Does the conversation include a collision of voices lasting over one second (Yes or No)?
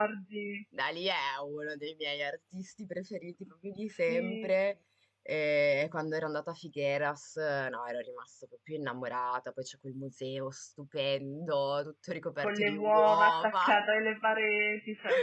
Yes